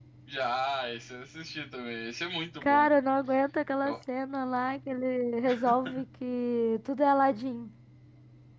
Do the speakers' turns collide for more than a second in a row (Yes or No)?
No